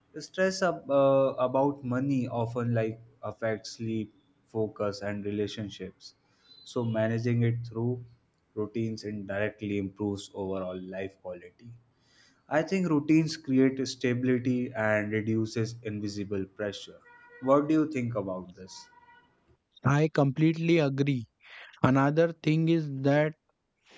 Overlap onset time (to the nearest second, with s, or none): none